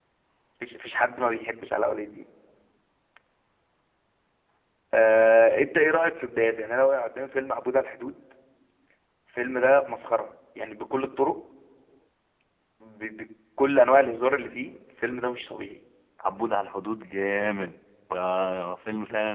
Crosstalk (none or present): none